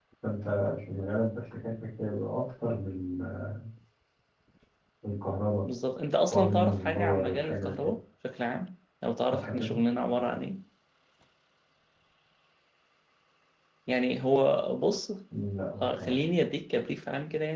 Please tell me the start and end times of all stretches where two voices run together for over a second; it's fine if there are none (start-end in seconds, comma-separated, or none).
6.3-7.9